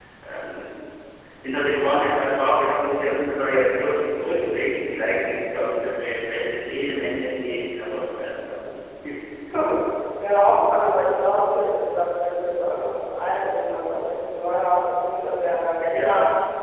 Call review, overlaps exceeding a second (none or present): none